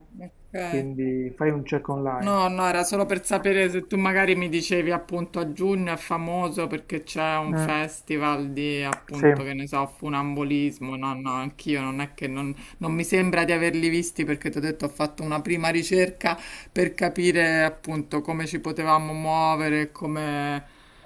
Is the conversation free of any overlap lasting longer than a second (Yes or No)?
Yes